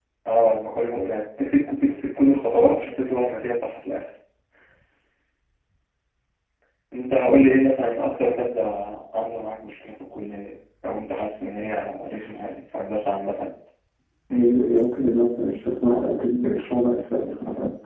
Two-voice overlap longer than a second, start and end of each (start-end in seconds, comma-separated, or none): none